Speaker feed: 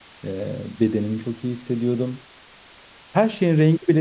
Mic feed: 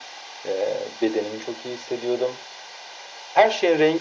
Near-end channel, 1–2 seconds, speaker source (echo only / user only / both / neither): echo only